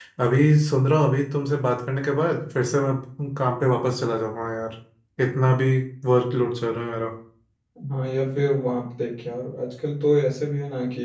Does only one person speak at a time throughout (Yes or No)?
Yes